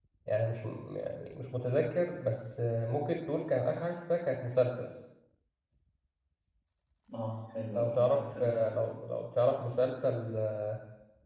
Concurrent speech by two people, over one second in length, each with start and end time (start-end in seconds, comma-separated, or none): 7.7-9.0